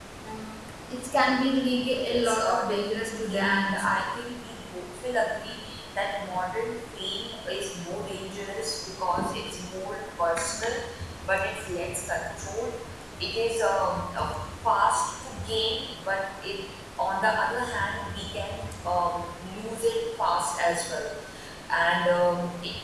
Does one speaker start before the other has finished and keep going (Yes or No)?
Yes